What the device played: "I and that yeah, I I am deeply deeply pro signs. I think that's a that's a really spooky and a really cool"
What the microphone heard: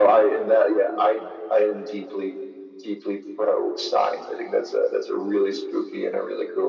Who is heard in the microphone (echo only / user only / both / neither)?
echo only